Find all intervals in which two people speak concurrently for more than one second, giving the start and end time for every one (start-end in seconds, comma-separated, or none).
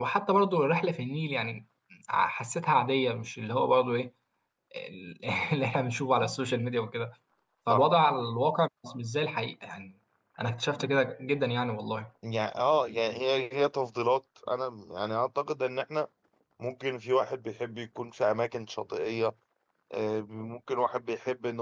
none